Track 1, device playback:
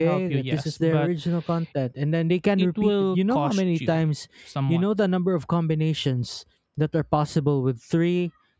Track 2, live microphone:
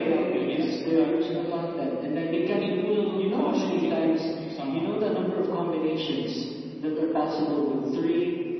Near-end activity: none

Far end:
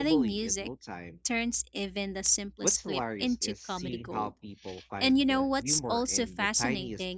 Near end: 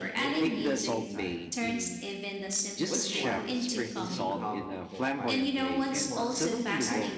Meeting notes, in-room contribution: present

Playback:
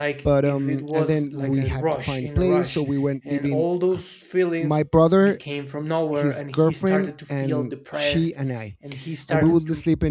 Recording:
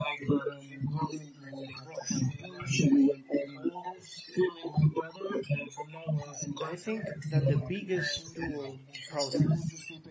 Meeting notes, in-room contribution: present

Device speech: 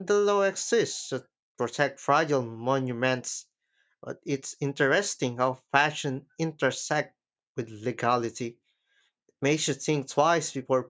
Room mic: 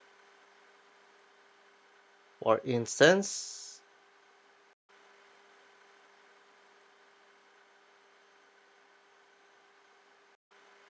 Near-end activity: present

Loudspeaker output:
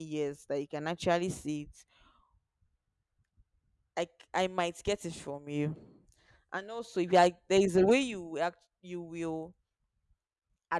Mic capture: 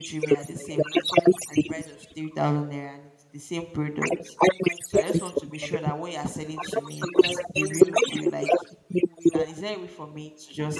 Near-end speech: present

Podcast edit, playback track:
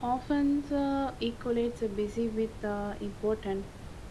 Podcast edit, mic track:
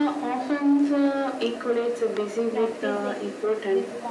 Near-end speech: present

